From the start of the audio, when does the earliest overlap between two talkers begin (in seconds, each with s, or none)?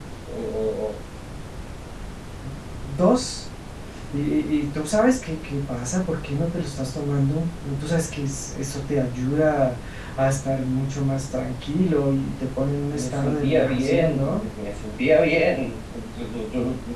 12.9 s